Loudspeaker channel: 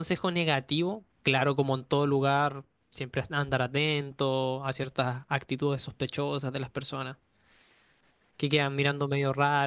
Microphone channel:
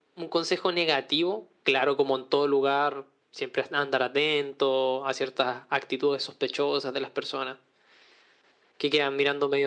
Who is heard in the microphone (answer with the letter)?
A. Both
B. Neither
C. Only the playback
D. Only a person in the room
C